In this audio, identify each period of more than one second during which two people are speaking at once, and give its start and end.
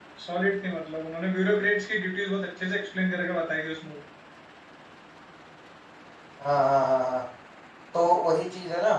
none

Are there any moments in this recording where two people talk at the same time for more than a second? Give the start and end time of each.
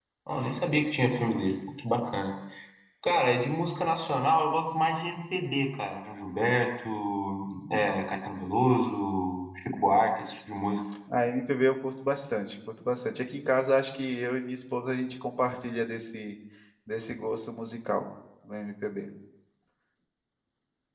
none

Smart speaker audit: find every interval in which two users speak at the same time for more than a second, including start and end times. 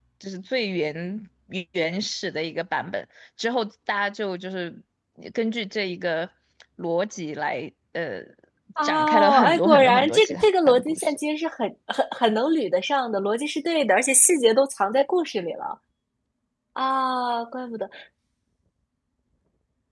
8.8-11.2

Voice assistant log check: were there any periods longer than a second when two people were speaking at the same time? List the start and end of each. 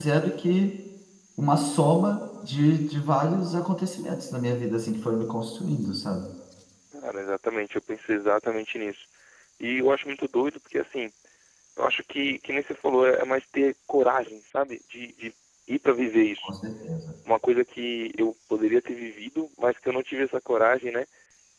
none

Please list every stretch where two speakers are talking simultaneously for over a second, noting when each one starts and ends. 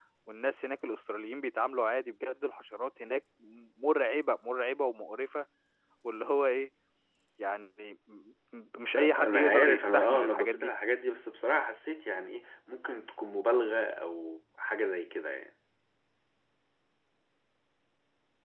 9.0-10.7

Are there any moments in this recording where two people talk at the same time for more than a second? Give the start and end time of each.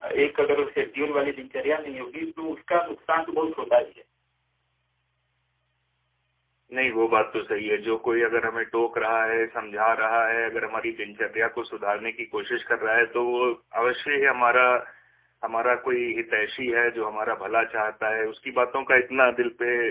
none

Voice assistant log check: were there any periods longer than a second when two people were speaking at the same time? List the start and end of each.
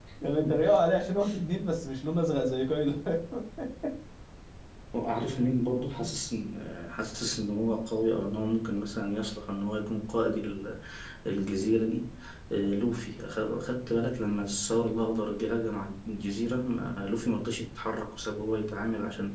none

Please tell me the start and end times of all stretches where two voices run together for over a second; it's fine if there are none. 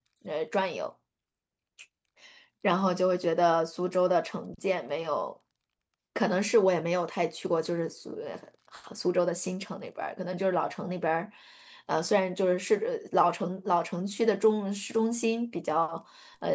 none

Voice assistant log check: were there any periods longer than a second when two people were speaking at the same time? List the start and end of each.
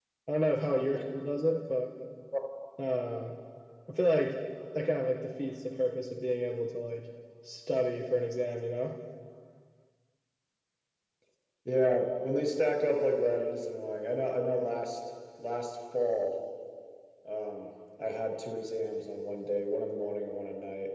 none

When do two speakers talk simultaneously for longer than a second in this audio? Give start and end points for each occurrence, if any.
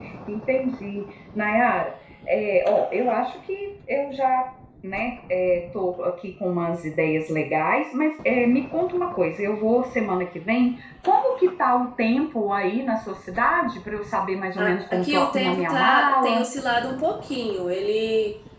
14.6-16.4

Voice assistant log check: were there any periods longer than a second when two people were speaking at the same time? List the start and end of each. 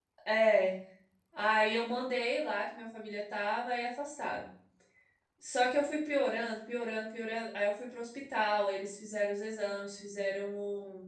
none

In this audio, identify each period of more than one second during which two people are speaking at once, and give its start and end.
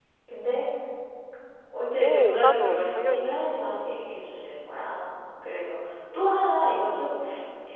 2.0-3.5

